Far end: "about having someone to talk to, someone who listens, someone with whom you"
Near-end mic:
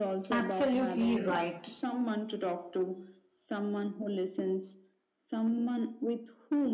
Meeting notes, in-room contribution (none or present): present